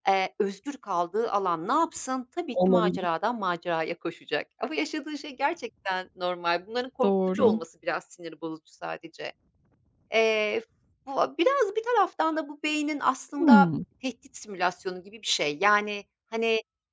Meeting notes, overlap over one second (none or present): none